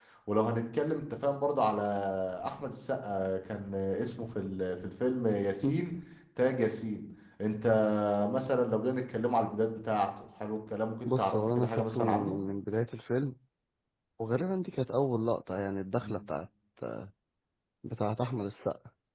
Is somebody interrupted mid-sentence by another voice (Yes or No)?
Yes